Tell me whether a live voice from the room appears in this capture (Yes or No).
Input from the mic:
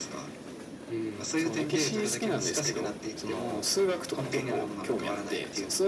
No